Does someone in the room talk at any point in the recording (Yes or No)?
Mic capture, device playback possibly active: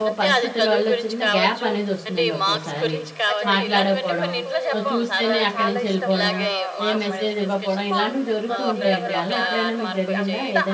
Yes